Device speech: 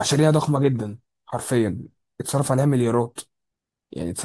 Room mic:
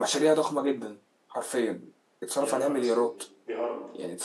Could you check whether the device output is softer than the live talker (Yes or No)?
No